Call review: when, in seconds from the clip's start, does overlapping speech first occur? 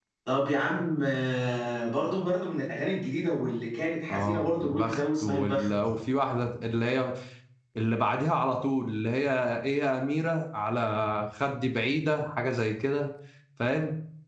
4.1 s

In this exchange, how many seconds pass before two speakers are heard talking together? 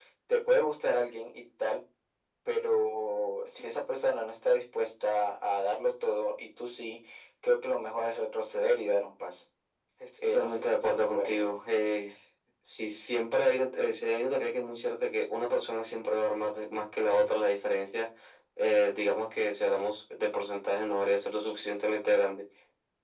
10.2 s

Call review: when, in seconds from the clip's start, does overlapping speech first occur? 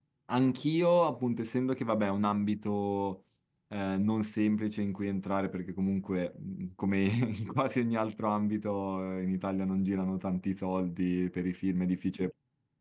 none

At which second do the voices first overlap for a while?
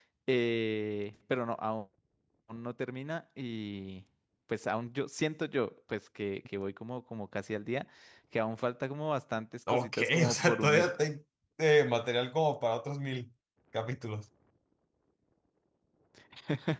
9.7 s

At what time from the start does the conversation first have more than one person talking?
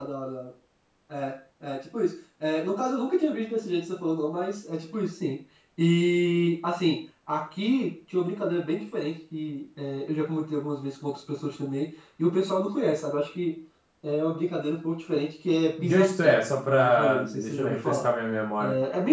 15.8 s

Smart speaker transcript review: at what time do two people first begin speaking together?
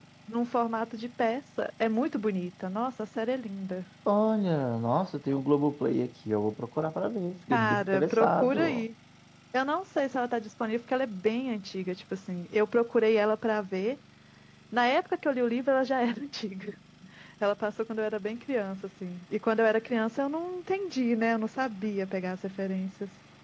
7.5 s

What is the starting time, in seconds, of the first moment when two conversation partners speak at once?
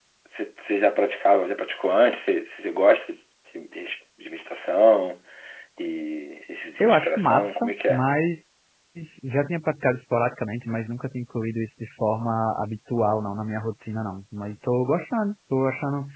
6.8 s

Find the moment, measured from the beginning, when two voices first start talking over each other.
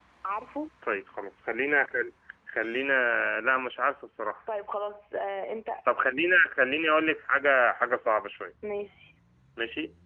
none

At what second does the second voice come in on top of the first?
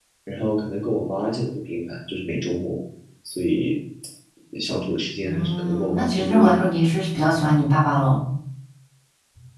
5.2 s

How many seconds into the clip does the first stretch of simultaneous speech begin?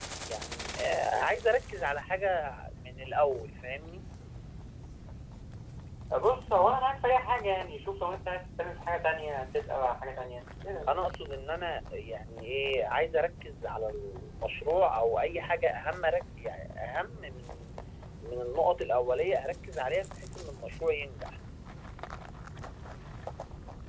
none

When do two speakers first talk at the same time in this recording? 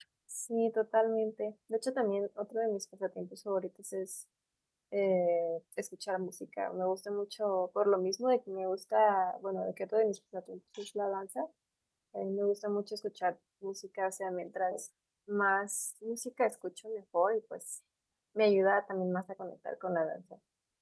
none

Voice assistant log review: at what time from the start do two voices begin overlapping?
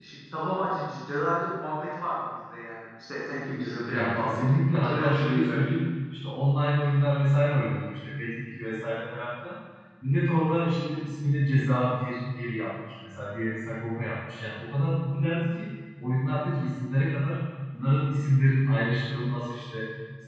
3.9 s

